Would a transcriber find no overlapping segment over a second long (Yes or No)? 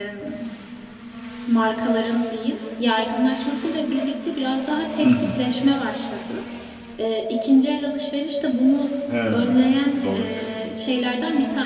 Yes